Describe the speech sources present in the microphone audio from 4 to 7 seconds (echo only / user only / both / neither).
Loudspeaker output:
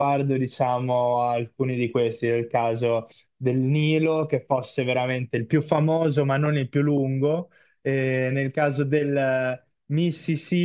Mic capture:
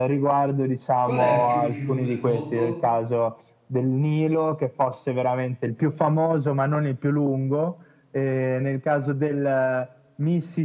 echo only